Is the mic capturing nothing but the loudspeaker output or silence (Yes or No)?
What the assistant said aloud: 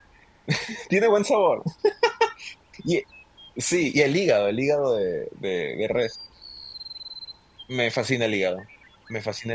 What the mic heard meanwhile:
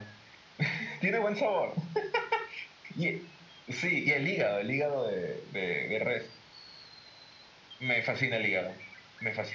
Yes